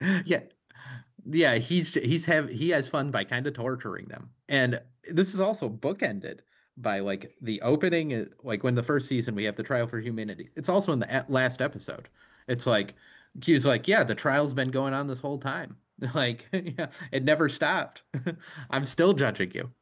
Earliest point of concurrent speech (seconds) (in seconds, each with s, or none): none